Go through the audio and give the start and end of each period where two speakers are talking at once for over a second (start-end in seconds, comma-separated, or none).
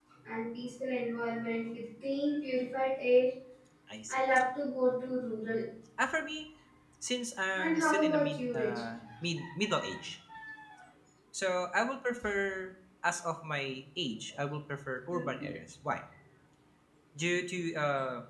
7.6-8.8